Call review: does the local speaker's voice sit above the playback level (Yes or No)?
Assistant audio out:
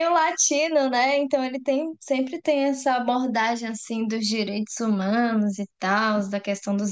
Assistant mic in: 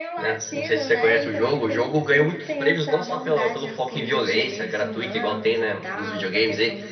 Yes